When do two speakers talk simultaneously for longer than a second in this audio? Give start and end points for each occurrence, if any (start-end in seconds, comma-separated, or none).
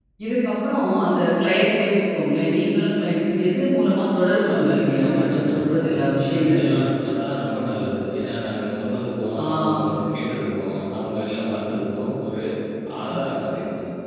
4.5-5.9